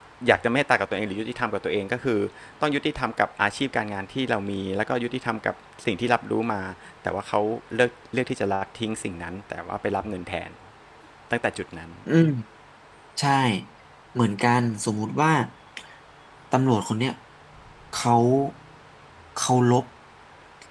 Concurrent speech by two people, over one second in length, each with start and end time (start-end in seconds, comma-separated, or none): none